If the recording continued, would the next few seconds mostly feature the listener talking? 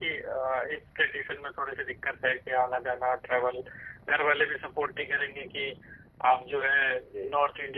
No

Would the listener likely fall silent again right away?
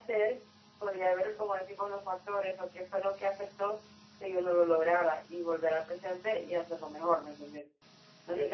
No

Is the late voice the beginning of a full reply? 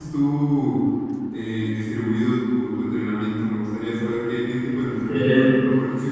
No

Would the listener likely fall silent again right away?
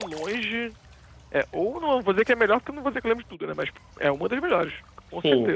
No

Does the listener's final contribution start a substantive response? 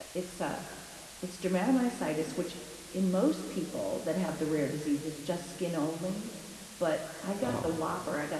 No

